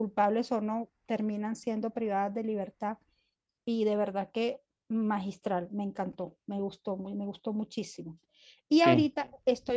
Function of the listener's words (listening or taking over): listening